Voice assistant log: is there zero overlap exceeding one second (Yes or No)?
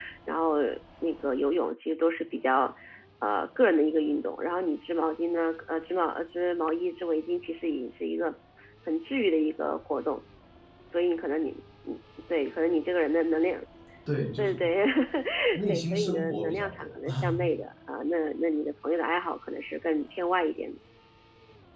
No